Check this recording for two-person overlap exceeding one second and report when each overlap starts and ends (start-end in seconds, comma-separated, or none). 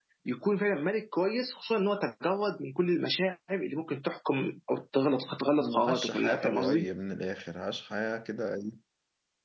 5.5-6.9